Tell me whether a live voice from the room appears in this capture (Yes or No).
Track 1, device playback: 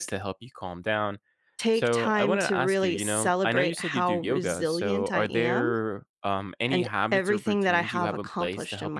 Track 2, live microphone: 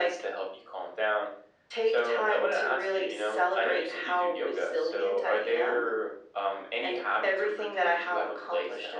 No